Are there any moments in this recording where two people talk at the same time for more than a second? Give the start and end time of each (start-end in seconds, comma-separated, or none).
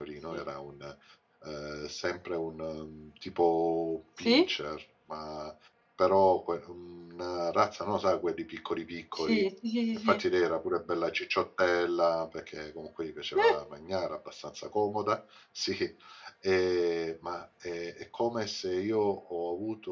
none